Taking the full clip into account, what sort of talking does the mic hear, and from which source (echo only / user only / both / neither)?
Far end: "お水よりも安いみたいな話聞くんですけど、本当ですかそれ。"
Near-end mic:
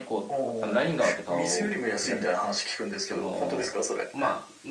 both